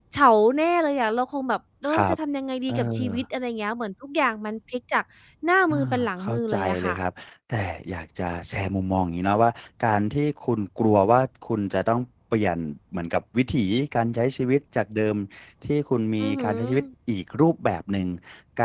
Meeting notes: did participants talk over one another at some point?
Yes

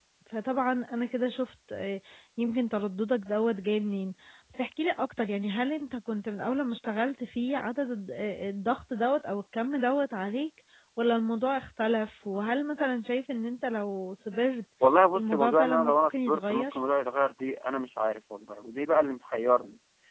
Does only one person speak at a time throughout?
No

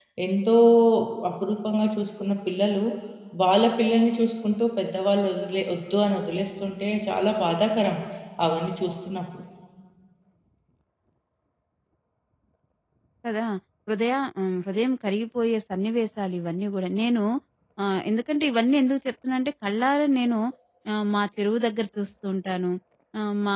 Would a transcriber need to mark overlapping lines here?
No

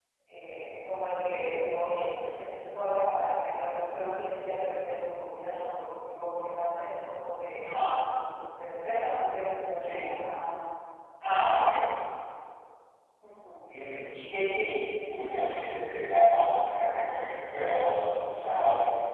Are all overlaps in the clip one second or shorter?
Yes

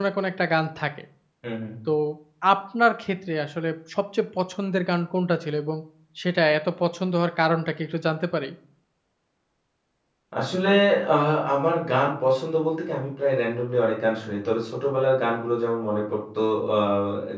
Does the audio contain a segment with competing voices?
No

